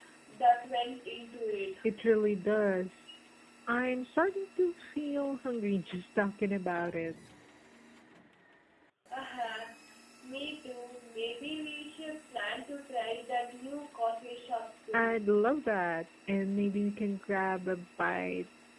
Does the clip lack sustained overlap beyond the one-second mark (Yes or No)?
Yes